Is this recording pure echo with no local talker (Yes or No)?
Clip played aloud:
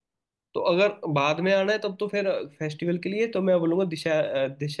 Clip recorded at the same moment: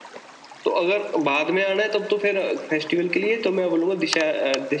Yes